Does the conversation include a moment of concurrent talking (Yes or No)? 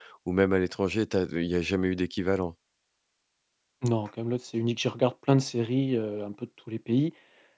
No